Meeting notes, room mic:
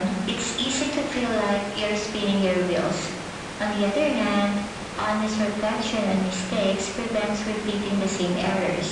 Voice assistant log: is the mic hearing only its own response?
Yes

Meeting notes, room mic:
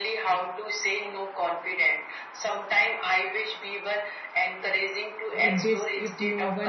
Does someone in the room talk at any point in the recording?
Yes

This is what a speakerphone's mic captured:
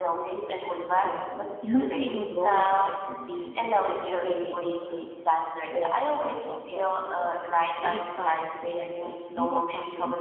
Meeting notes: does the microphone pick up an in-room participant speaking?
Yes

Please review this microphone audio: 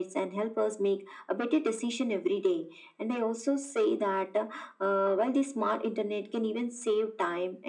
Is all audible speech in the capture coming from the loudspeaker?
Yes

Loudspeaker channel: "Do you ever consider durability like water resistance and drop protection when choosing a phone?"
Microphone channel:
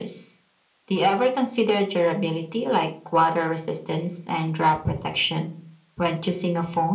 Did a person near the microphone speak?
No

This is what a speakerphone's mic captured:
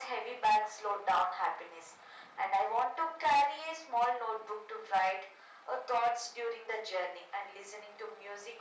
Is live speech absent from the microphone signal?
Yes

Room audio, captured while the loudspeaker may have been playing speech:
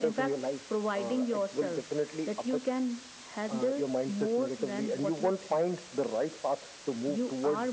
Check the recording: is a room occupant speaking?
No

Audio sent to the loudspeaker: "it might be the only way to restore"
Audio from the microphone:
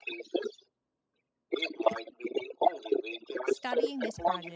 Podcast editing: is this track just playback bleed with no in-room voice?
No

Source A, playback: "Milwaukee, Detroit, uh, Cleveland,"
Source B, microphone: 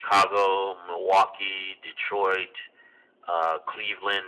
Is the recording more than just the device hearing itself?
No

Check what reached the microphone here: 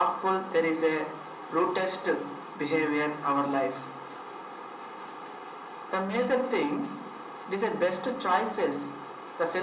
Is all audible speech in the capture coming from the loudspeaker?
Yes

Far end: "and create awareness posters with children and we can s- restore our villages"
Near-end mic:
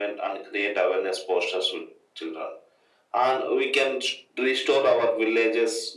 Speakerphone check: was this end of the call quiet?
Yes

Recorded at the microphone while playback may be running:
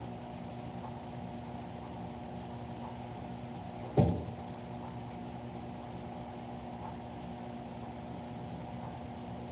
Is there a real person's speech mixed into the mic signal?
No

